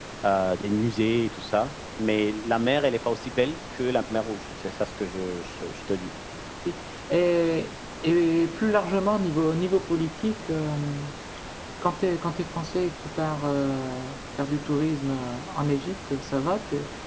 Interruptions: none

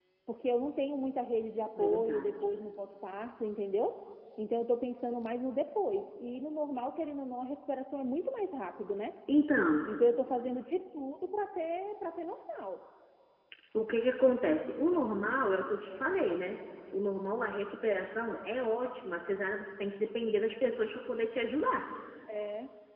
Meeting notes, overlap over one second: none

